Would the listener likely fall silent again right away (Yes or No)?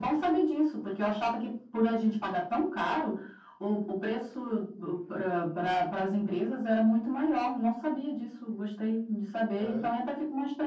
Yes